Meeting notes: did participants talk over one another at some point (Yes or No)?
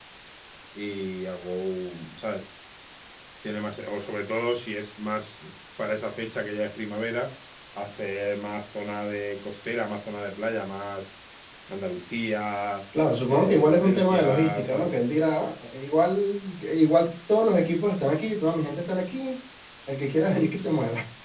Yes